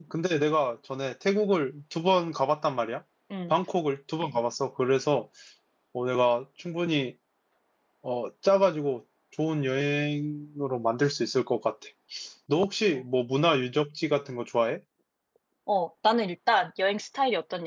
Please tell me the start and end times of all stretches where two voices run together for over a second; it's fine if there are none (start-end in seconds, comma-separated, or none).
none